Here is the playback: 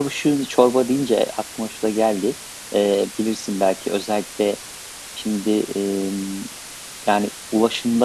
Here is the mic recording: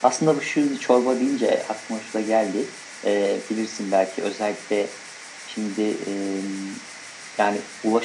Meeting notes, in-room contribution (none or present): none